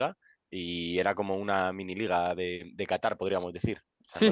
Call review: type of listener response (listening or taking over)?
taking over